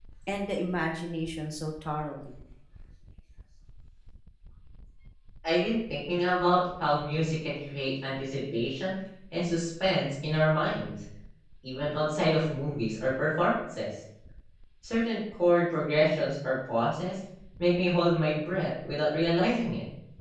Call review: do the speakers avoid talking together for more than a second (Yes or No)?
Yes